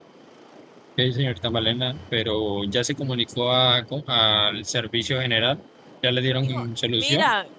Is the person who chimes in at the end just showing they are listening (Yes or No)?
No